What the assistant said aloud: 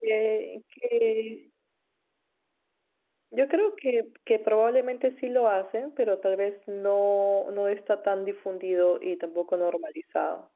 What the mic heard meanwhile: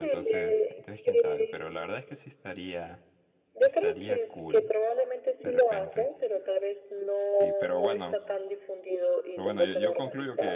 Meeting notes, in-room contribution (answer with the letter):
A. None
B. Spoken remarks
B